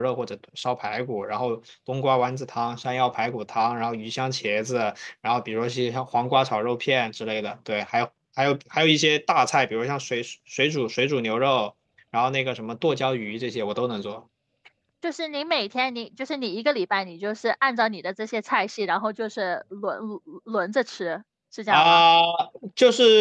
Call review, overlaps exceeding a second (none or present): none